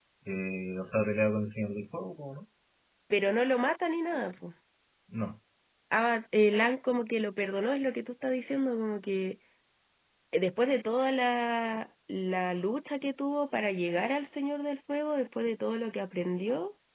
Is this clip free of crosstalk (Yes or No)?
Yes